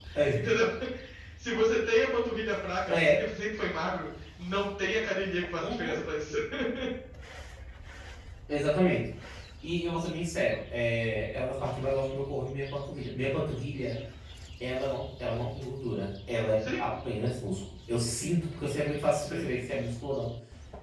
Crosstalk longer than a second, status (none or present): none